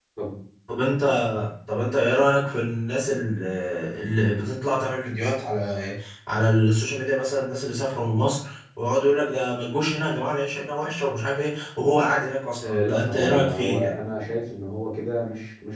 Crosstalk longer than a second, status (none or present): present